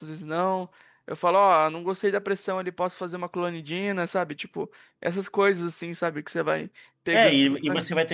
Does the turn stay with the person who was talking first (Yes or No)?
No